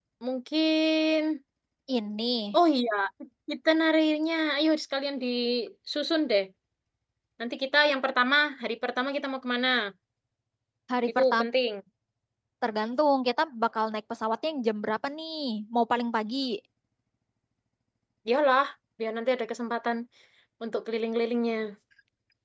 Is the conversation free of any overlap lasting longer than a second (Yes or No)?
Yes